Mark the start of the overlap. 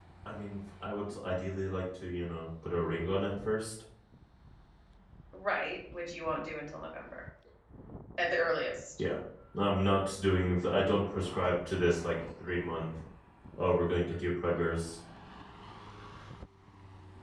none

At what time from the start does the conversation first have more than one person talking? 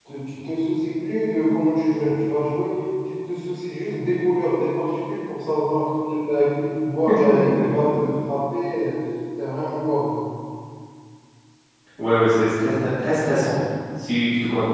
none

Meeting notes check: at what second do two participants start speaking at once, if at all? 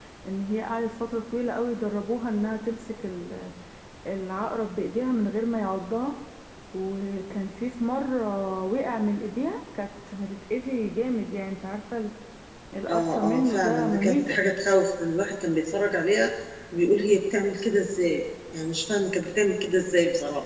13 s

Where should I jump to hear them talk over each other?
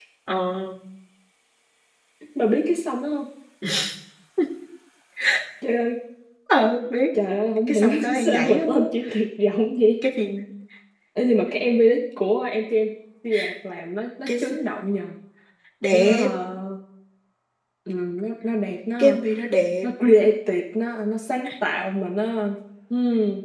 8 s

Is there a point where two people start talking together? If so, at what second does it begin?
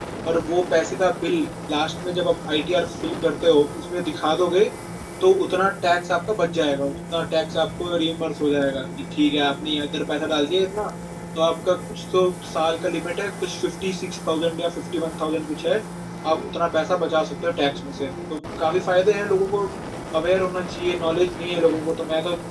none

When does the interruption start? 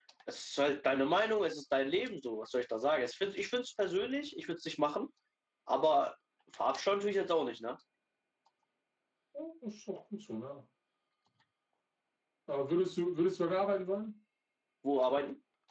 none

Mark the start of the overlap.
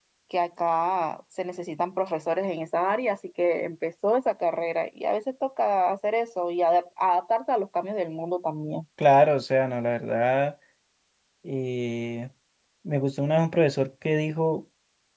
none

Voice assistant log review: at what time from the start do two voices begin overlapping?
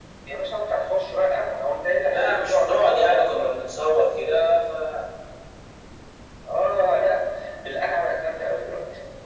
2 s

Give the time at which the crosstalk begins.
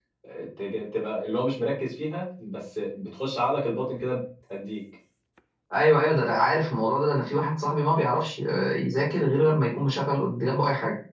none

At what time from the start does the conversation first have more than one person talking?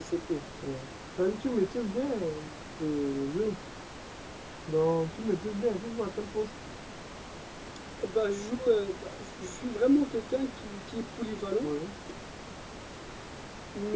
none

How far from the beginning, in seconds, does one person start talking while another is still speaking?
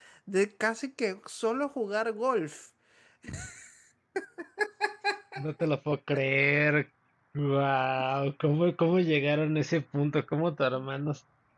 none

